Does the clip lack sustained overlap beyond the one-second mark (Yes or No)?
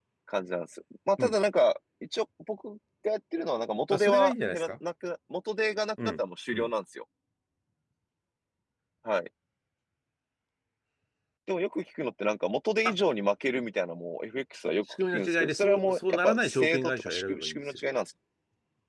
No